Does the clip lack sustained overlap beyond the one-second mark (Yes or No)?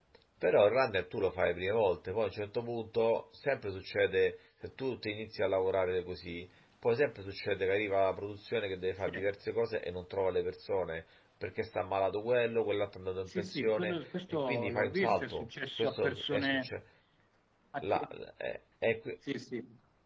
No